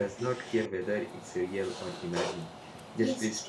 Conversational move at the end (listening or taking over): listening